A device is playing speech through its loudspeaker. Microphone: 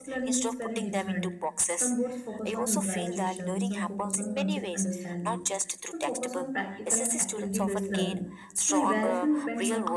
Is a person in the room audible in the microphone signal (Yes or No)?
Yes